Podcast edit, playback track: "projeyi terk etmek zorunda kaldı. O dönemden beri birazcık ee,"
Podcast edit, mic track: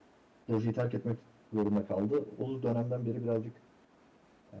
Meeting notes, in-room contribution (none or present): none